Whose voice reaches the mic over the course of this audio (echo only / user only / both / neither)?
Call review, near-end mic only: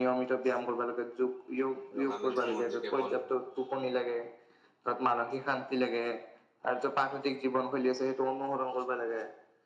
both